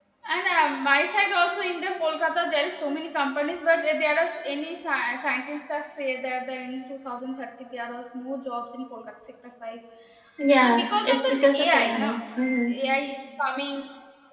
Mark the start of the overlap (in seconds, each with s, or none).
10.6 s